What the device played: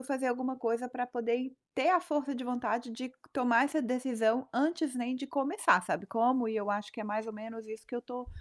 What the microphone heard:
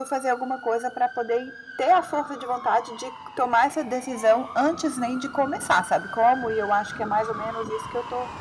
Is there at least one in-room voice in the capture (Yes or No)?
No